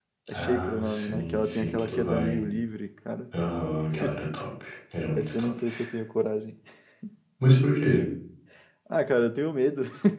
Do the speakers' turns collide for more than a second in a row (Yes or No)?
Yes